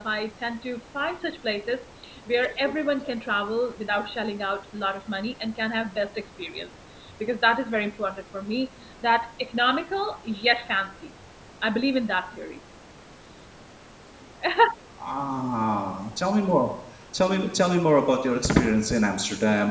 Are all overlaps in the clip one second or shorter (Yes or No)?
Yes